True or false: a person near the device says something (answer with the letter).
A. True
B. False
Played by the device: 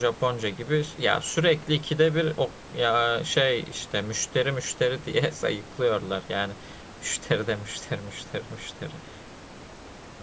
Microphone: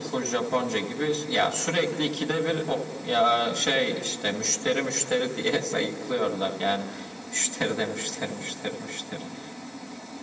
B